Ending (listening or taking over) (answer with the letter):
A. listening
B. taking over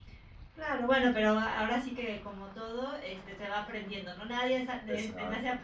A